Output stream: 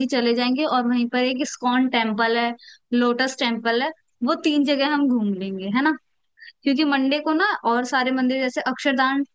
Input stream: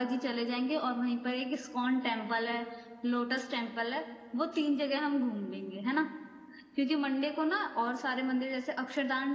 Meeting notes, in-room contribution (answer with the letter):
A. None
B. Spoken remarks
A